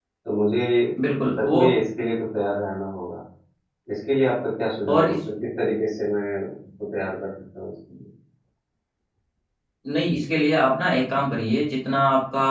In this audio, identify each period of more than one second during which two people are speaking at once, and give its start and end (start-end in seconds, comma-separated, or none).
none